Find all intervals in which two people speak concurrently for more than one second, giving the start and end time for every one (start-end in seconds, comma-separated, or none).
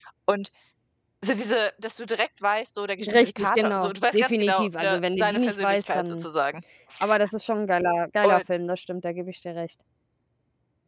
3.0-6.2